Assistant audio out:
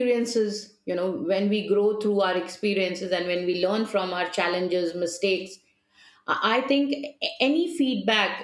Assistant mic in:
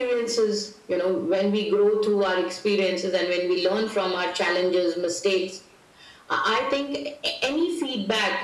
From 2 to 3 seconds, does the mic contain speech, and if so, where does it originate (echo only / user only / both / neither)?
echo only